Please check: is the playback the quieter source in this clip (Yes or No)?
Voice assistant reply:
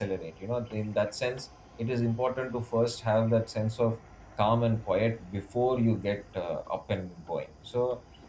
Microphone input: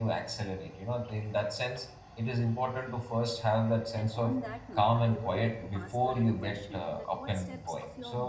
No